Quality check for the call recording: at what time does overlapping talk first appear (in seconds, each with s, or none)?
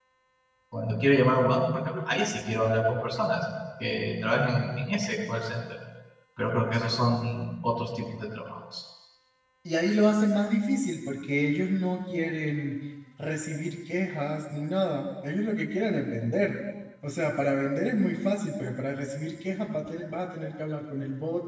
none